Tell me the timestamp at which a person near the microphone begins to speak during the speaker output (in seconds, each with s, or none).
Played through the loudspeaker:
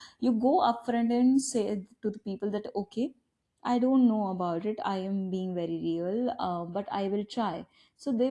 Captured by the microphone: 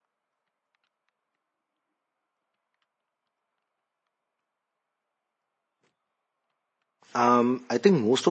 7.2 s